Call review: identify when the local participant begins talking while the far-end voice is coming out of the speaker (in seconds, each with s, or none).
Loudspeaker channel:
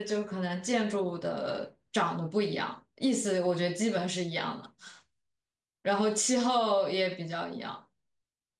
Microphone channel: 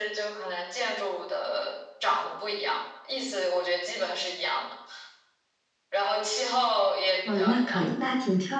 7.2 s